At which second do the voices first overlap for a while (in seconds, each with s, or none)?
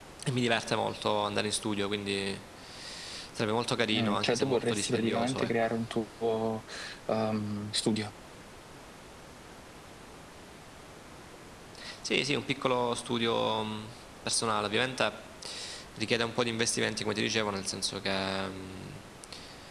3.9 s